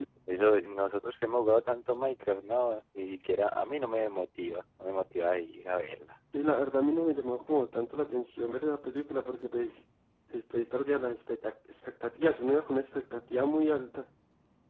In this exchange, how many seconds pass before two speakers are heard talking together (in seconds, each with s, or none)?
none